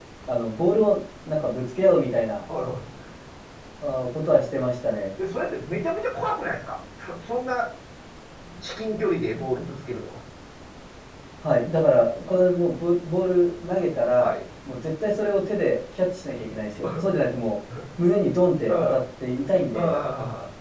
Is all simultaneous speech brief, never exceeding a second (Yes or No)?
Yes